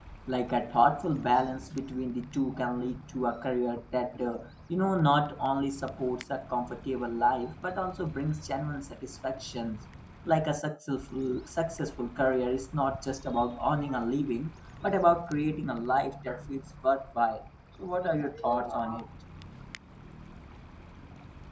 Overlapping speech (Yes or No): No